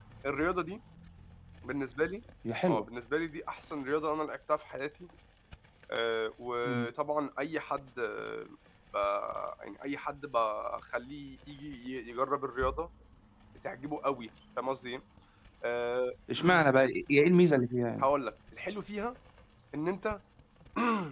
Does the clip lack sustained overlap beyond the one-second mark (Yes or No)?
Yes